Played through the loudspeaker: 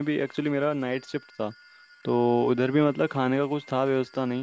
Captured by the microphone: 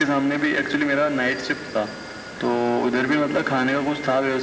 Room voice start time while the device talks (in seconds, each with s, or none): none